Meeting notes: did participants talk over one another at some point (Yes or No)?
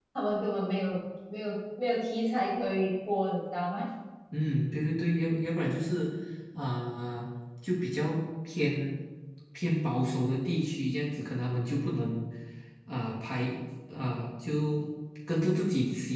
No